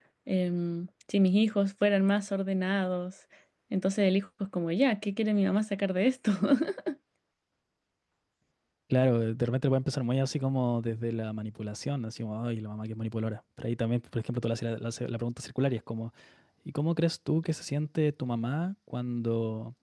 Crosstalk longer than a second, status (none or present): none